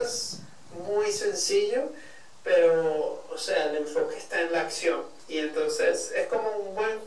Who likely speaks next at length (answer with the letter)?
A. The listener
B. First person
B